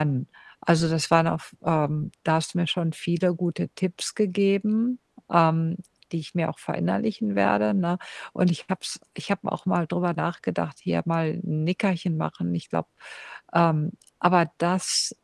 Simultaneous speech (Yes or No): No